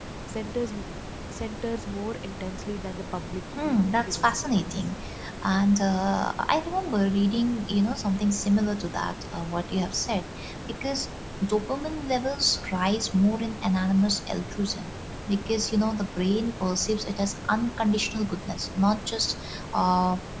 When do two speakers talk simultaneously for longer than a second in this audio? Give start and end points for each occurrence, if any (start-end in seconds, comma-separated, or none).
3.6-4.9